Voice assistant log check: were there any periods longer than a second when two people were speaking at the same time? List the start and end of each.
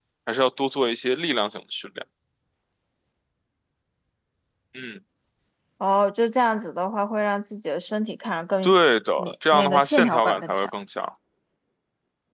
9.2-10.7

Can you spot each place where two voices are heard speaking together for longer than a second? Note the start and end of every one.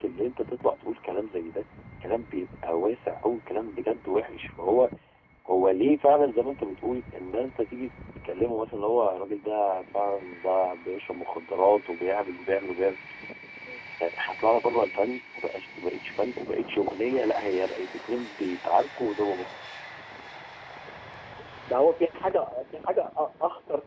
none

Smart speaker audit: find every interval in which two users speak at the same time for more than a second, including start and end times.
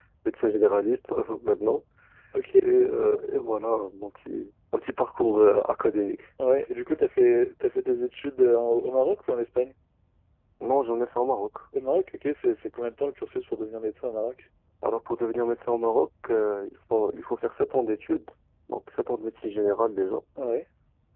none

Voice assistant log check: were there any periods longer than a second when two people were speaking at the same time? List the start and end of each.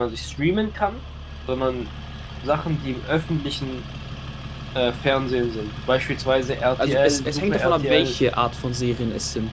6.8-8.1

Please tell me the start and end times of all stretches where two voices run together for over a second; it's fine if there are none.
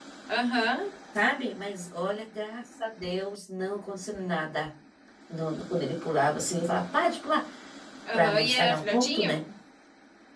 8.1-9.4

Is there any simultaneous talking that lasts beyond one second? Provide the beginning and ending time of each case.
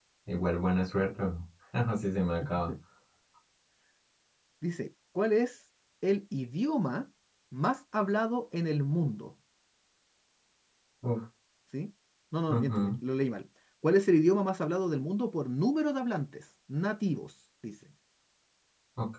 none

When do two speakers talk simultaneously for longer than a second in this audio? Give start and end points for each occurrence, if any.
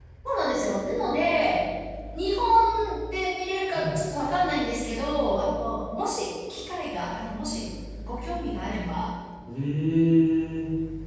none

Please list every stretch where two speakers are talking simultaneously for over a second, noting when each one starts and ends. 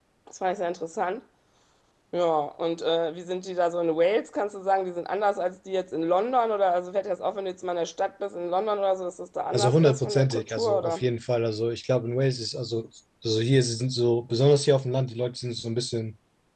9.5-11.0

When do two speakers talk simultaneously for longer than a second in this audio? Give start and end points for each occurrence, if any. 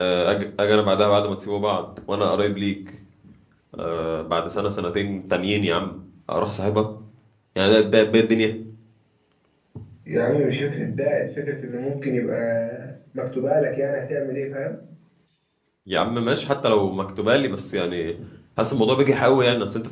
none

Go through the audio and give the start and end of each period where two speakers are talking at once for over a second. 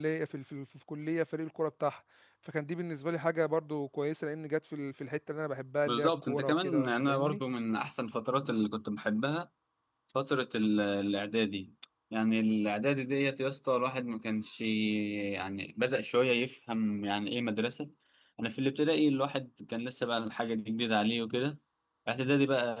5.9-7.4

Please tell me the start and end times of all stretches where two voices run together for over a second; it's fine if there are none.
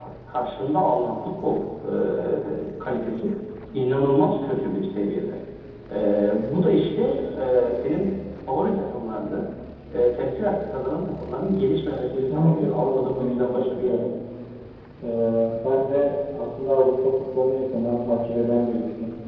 12.1-14.1

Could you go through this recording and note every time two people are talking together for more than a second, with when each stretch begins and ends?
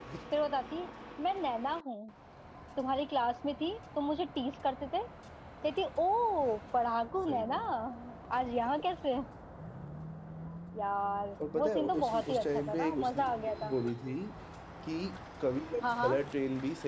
11.6-13.7

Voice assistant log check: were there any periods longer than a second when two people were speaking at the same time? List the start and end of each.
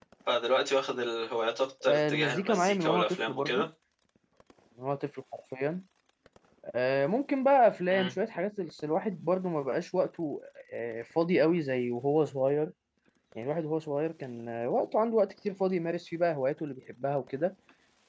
1.8-3.7

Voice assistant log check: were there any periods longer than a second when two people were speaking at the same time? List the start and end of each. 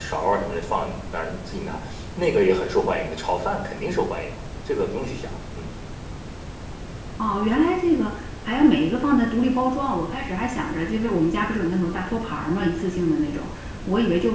none

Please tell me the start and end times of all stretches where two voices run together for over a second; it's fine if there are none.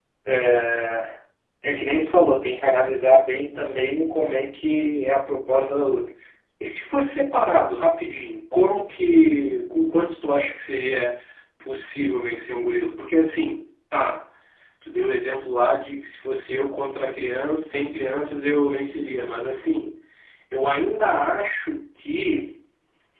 none

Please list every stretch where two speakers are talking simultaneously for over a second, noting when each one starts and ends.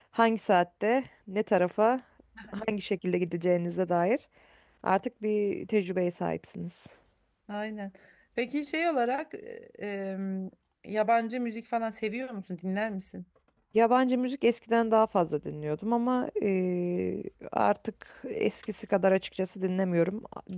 none

